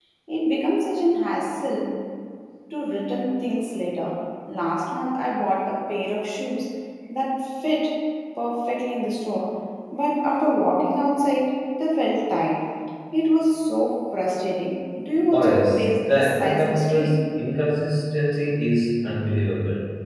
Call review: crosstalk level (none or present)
present